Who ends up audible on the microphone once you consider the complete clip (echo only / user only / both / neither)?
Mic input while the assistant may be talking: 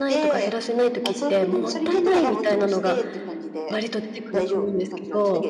both